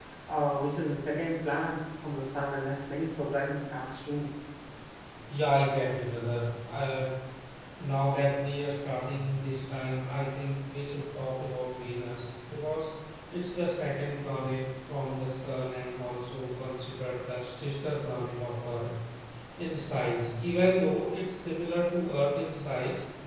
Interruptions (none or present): none